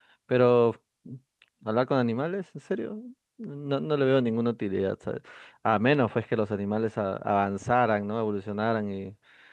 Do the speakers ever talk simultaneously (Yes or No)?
No